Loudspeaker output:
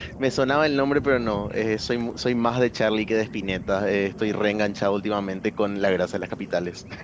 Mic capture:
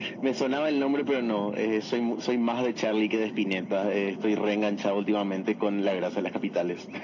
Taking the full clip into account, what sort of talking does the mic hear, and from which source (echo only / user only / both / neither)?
echo only